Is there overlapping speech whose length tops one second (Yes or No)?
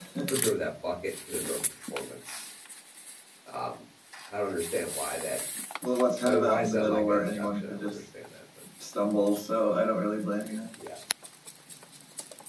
Yes